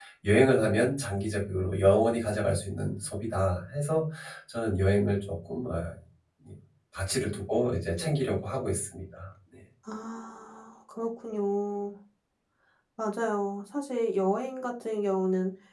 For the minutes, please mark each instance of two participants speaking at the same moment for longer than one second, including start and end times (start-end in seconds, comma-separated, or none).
none